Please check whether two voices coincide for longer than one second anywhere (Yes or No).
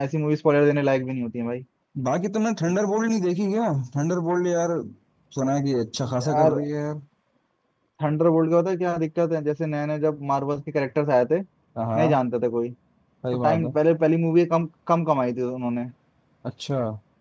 No